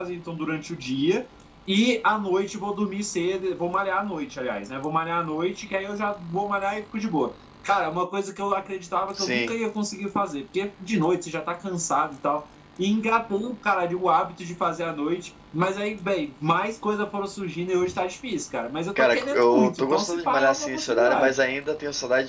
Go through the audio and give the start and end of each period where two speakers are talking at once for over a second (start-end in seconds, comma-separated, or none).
19.1-21.4